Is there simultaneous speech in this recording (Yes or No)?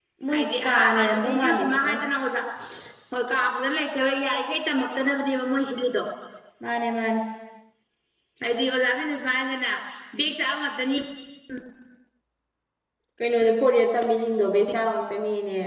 Yes